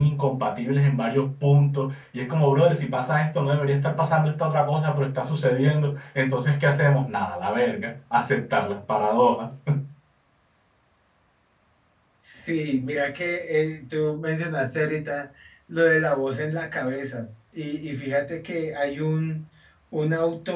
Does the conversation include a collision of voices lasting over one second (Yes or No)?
No